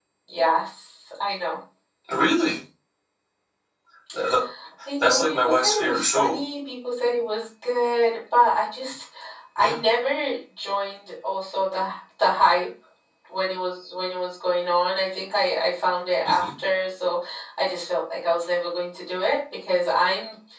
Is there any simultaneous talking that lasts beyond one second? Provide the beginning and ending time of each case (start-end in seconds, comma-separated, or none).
5.0-6.4